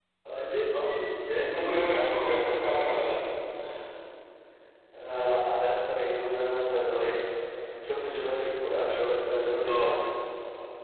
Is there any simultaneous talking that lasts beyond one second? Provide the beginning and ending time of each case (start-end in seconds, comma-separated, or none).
none